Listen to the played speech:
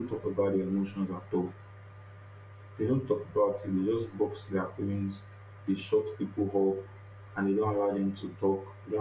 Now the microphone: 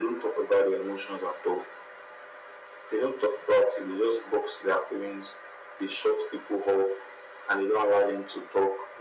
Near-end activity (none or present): none